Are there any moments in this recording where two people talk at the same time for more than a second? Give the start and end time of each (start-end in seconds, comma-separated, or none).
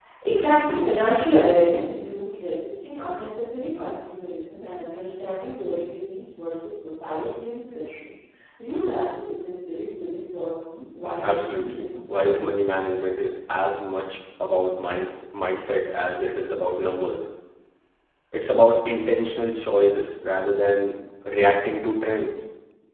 11.2-12.5